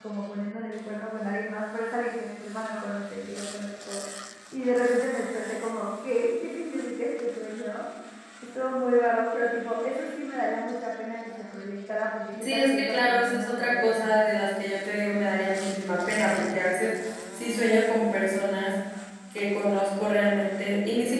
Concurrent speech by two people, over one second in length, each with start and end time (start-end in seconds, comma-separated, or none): 12.4-14.0